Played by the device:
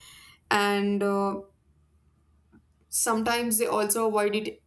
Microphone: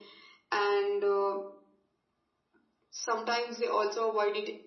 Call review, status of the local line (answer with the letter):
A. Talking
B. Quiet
B